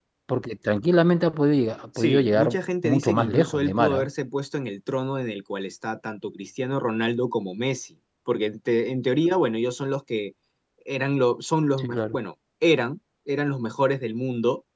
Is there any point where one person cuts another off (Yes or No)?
Yes